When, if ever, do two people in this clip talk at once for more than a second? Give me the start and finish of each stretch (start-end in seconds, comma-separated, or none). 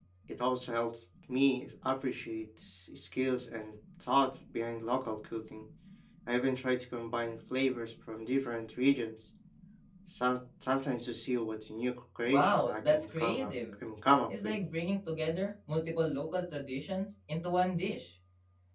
12.2-13.5